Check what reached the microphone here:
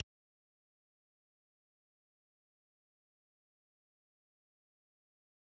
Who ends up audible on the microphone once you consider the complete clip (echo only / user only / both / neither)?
neither